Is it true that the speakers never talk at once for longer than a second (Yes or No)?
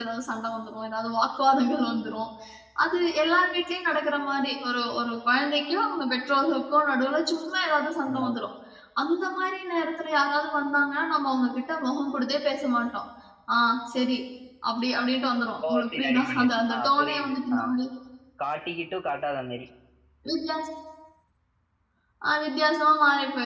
No